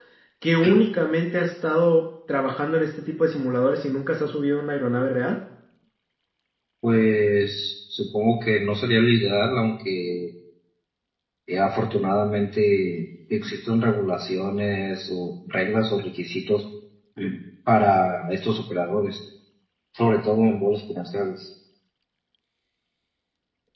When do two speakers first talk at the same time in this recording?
none

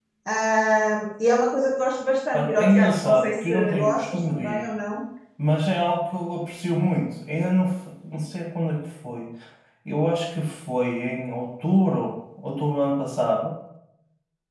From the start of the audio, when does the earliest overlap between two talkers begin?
2.3 s

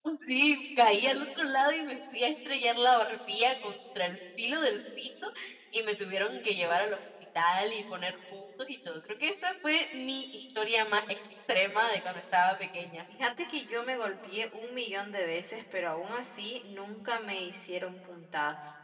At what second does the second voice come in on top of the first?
none

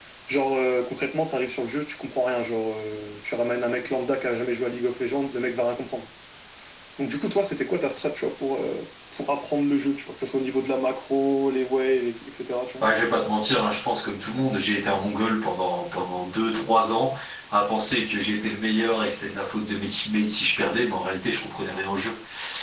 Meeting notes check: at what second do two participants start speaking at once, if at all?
none

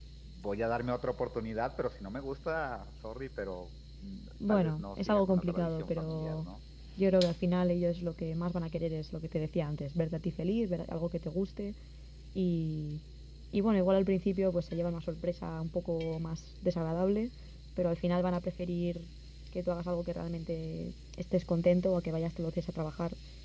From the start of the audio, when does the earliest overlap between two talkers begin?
4.4 s

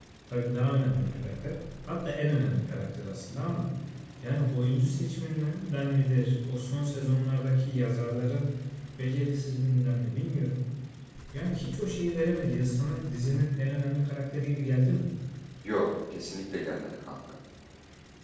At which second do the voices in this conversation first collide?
none

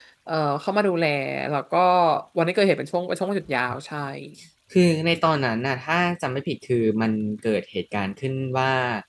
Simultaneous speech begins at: none

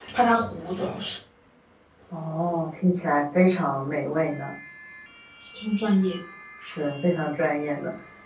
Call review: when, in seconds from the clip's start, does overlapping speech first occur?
none

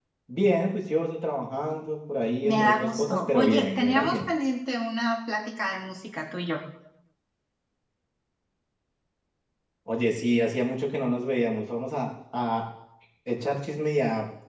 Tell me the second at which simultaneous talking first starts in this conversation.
2.4 s

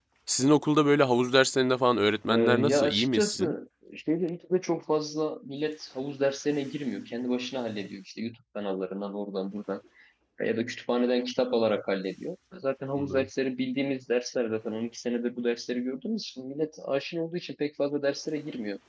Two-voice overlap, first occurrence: 2.3 s

